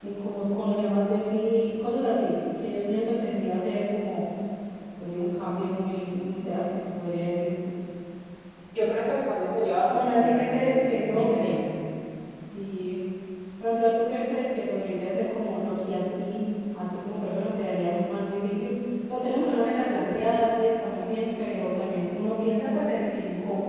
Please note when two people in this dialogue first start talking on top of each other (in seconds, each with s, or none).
9.9 s